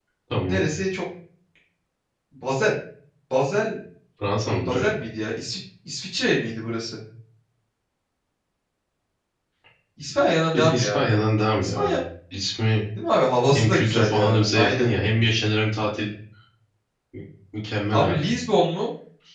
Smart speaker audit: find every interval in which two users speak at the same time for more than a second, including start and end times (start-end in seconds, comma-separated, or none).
13.5-14.9